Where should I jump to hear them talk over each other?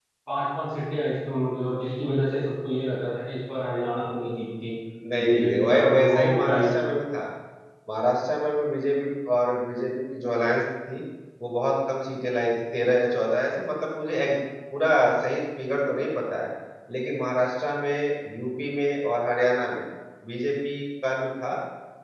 5.2 s

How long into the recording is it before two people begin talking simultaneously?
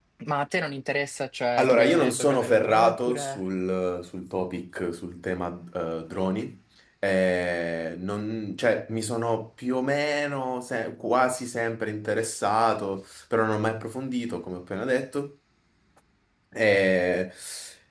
1.6 s

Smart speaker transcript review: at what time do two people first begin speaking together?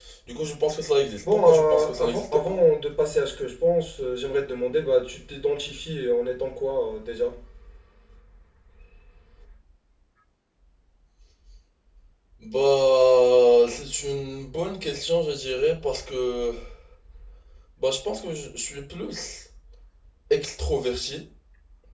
1.2 s

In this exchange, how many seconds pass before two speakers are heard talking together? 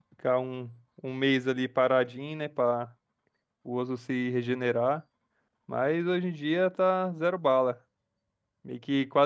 none

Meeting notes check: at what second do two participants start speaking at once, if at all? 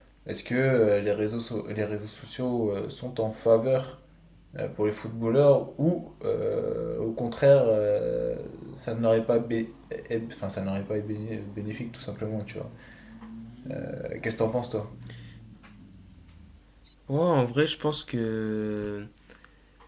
none

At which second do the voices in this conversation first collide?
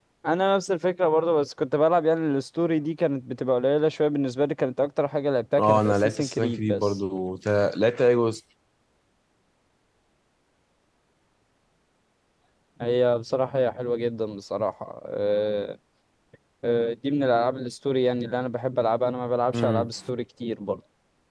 5.6 s

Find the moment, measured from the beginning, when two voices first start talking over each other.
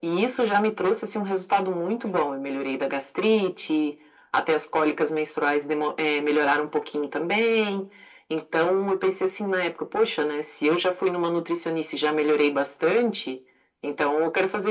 none

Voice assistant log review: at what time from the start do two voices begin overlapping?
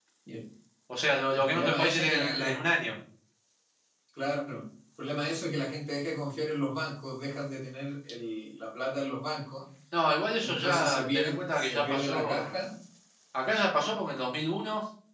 1.4 s

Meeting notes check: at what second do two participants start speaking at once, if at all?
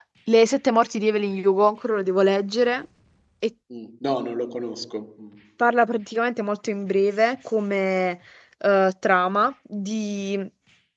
none

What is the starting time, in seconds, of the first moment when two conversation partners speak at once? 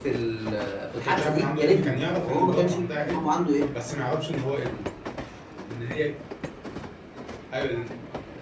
1.0 s

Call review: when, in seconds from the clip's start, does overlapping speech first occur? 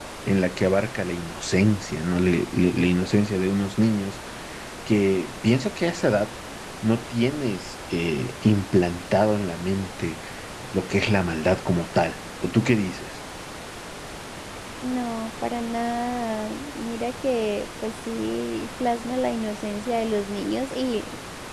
none

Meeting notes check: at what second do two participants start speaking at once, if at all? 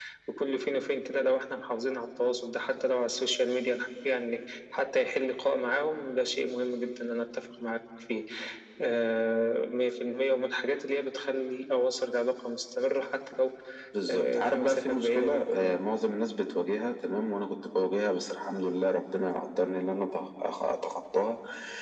14.1 s

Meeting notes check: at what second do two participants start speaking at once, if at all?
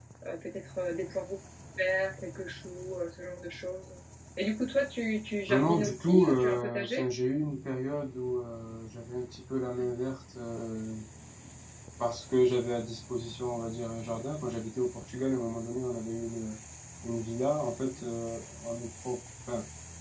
5.5 s

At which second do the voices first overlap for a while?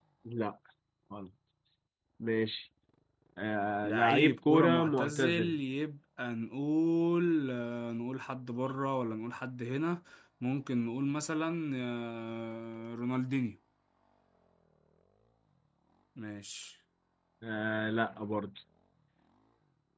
3.8 s

